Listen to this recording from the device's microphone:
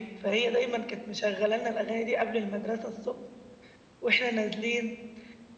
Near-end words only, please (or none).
none